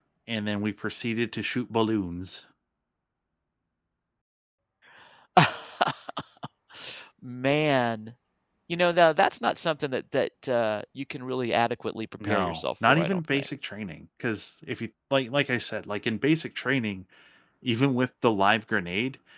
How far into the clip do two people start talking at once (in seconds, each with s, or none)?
12.2 s